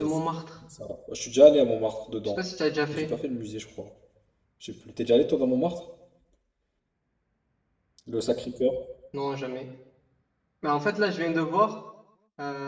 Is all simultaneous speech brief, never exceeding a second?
Yes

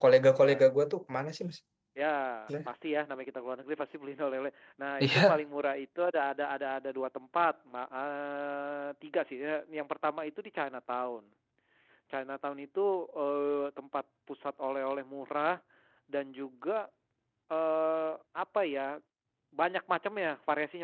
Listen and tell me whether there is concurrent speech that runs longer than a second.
No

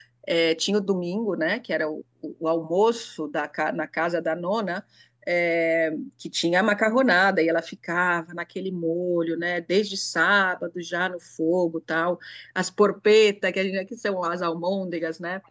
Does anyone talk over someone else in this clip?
No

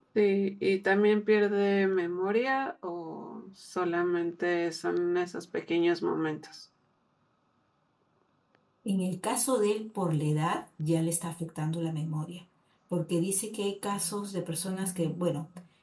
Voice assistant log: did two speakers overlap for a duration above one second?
No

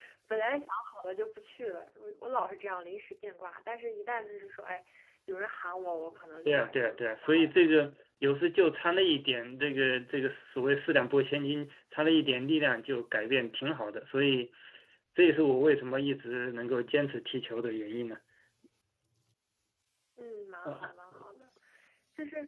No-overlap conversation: No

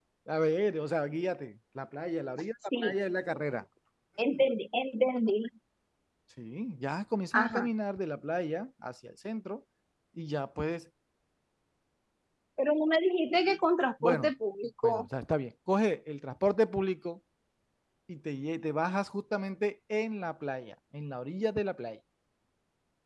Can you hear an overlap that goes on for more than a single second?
No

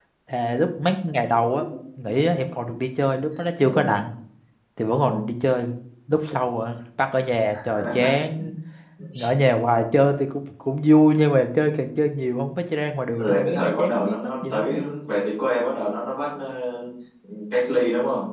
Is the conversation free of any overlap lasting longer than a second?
No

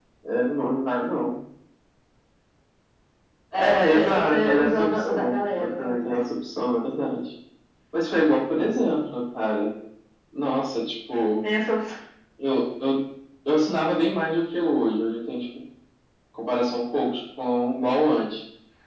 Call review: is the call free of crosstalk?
No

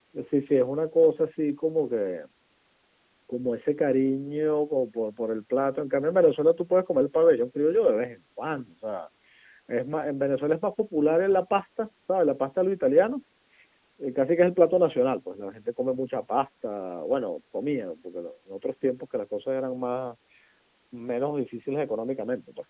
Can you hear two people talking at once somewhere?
No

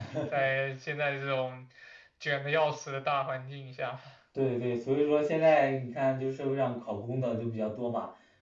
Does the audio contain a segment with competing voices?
No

